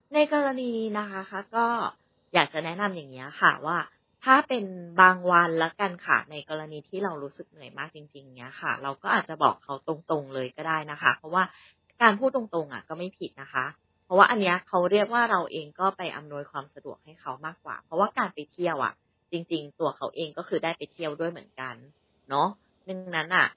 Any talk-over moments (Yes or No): No